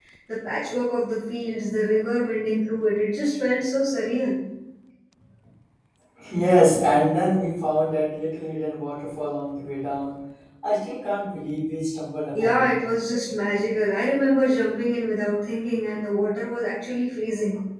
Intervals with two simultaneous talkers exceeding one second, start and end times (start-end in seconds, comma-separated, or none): none